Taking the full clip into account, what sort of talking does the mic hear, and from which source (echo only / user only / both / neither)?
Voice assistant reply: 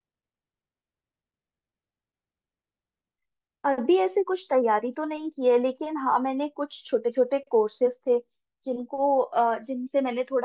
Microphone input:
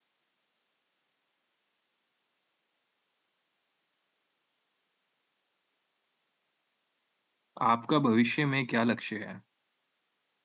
user only